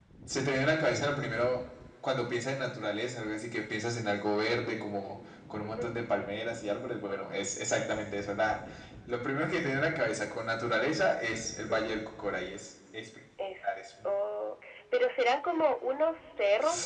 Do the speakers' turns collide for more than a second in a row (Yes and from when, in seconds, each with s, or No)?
No